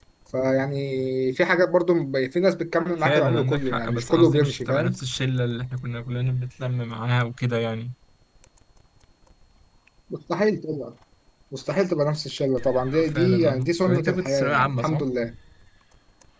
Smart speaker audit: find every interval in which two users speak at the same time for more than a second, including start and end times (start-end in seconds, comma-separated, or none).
3.0-5.0, 13.1-15.0